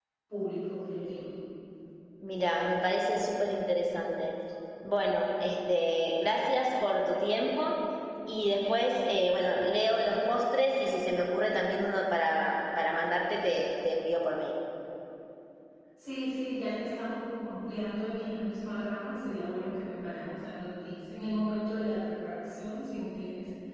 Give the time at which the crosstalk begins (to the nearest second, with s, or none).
none